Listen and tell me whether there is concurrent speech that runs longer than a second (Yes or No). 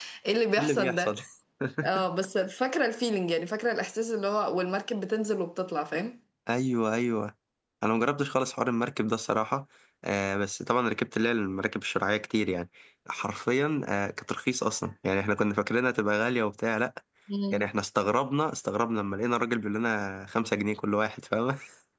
No